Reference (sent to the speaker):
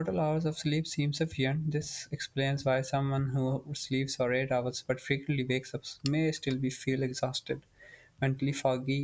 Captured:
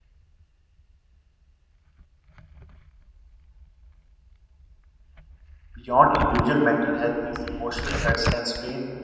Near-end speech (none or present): present